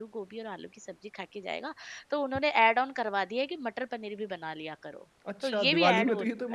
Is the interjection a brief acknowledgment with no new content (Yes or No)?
No